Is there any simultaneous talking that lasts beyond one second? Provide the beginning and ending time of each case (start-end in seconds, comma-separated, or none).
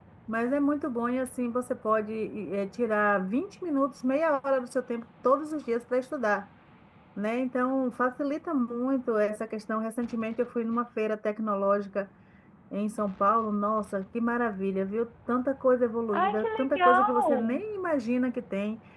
16.1-17.6